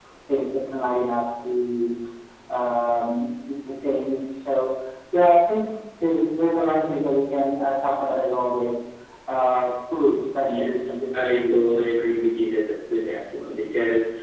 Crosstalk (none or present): present